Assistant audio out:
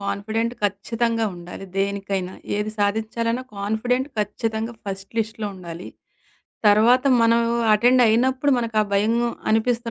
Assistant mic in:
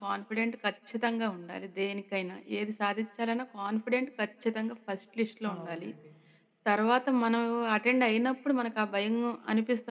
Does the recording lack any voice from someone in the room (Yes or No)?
No